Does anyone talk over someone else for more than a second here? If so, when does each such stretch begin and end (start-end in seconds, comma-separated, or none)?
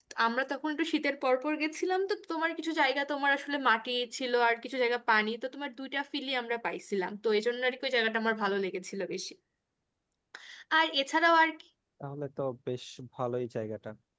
none